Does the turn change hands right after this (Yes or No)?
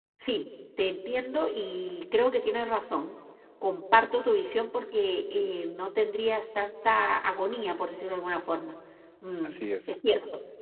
No